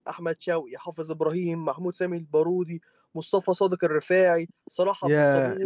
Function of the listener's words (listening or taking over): taking over